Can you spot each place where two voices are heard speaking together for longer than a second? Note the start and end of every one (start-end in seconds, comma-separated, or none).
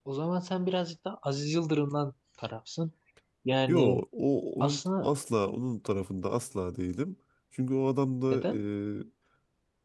none